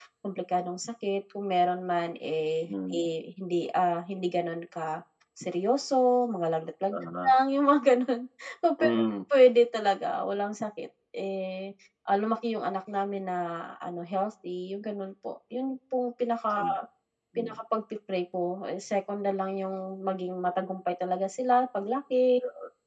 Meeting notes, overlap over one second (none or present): none